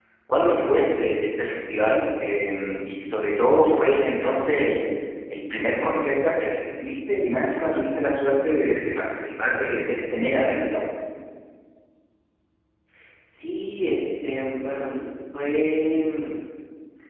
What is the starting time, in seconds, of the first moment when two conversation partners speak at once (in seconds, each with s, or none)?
none